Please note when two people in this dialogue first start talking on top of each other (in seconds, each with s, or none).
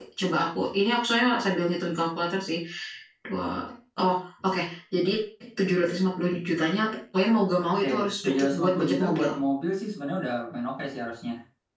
7.8 s